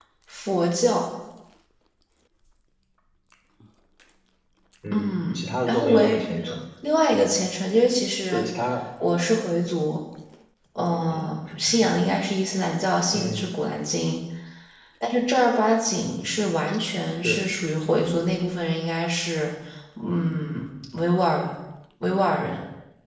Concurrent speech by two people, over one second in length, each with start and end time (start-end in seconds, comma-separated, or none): 4.9-6.1